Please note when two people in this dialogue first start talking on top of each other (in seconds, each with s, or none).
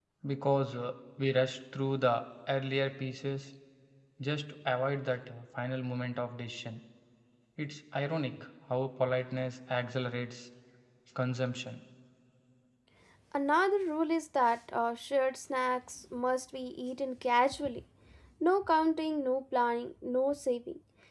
none